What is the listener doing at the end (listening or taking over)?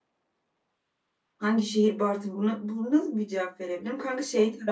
listening